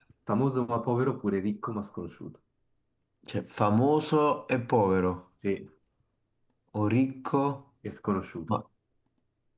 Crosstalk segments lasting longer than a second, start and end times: none

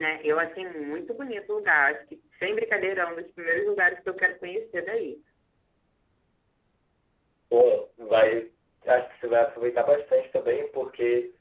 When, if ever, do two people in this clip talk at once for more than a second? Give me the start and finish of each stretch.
none

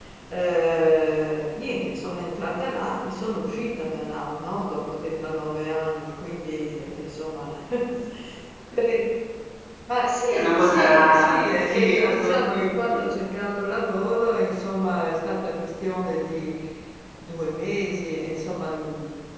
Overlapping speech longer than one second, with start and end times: 10.3-13.0

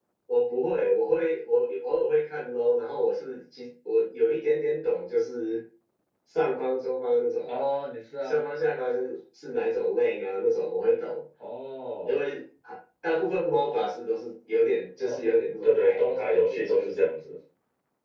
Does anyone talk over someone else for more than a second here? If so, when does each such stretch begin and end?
15.6-17.0

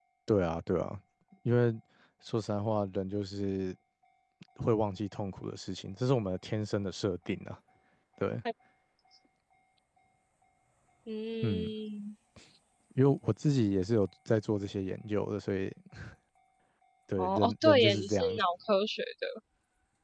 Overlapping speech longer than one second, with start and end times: 17.2-18.4

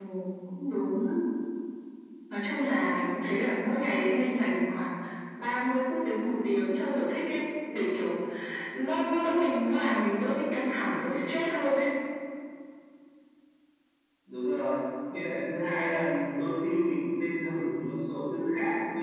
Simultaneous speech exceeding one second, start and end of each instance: none

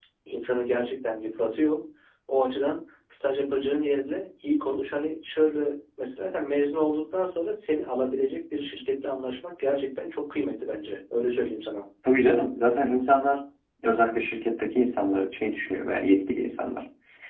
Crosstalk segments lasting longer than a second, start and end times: none

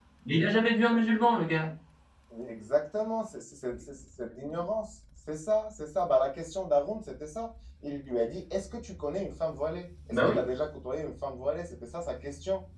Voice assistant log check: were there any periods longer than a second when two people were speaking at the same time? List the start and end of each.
none

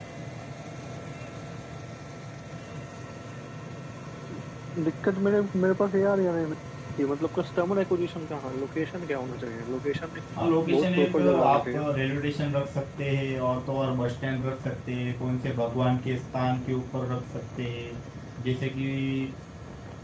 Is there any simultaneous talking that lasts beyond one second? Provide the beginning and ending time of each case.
10.6-11.9

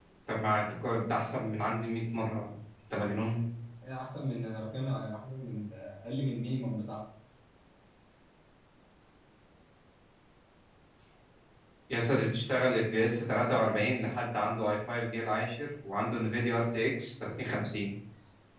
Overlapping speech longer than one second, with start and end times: none

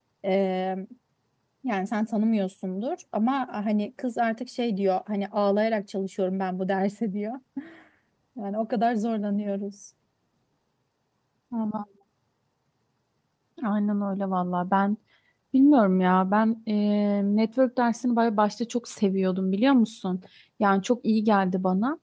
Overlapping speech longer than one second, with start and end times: none

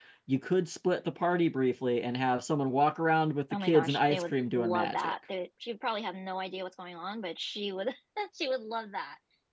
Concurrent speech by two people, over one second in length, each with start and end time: 3.5-5.1

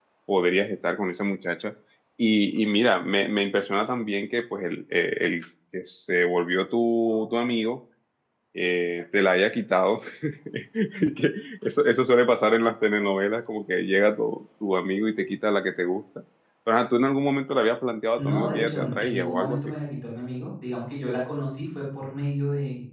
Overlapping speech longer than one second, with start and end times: 18.2-19.7

